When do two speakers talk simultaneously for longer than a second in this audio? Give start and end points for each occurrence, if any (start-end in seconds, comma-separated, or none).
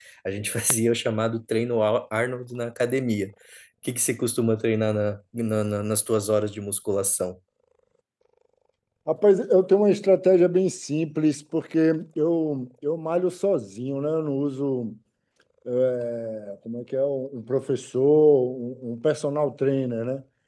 none